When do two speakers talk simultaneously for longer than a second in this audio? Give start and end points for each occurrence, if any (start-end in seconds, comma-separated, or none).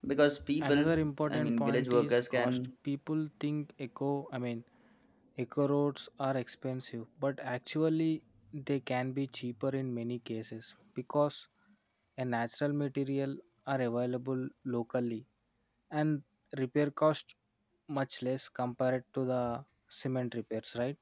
1.3-2.6